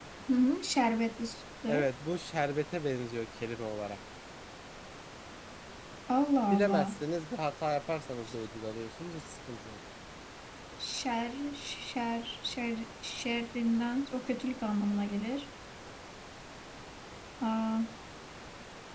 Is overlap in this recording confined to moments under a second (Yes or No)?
Yes